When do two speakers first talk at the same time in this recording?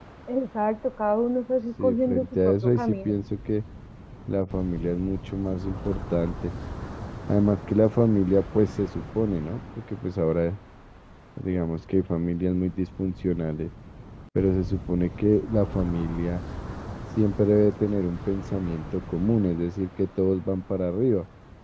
2 s

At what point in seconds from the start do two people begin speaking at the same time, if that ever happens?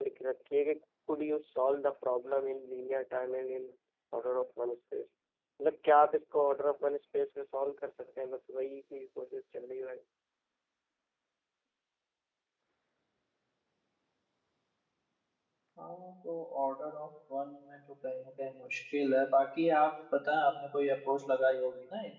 none

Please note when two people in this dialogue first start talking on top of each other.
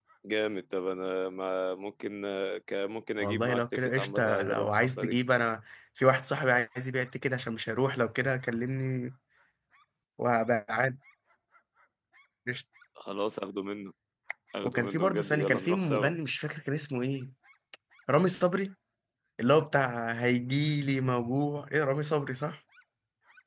3 s

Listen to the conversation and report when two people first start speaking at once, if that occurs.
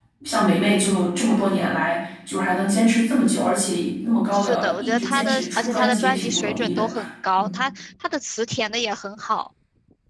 4 s

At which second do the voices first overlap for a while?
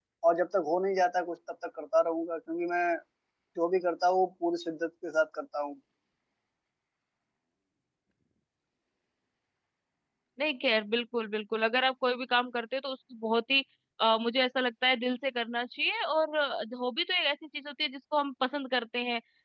none

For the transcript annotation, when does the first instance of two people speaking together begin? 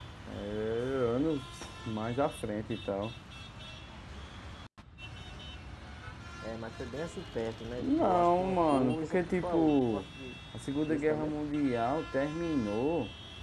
8 s

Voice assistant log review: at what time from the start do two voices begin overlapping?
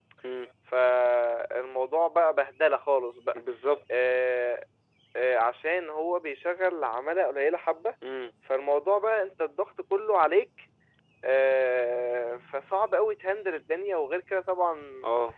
none

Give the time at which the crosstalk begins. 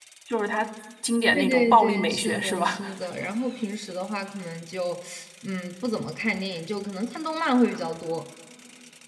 1 s

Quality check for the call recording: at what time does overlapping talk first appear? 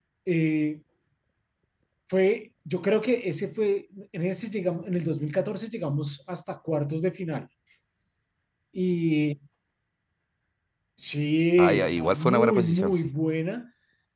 12 s

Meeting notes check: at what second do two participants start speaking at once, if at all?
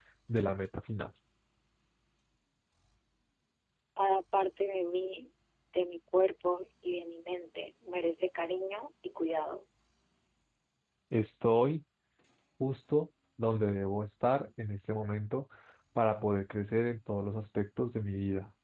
none

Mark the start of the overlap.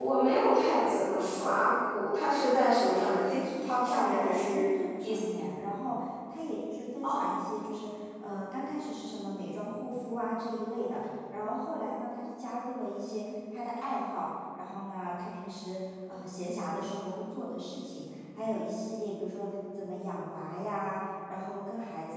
3 s

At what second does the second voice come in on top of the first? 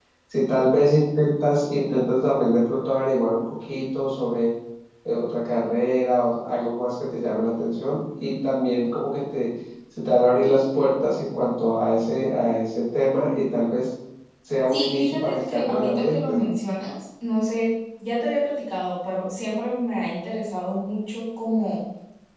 15 s

